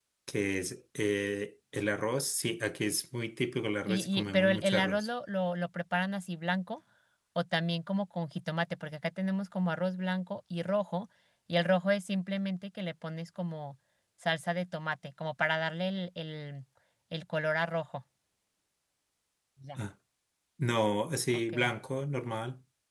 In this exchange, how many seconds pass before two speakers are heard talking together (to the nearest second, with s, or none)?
4 s